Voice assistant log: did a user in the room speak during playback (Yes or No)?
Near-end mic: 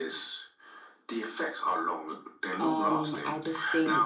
Yes